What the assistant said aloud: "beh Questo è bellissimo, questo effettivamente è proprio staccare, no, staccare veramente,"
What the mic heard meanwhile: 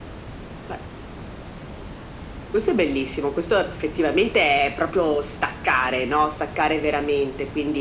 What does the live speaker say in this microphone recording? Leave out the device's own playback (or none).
none